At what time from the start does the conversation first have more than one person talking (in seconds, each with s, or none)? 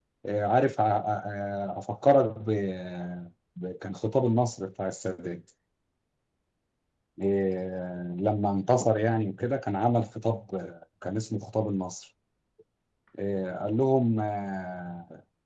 none